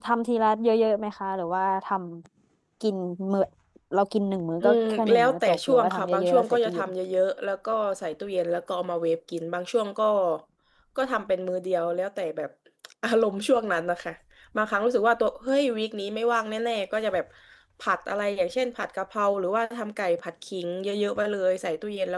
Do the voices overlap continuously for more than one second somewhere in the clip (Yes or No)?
Yes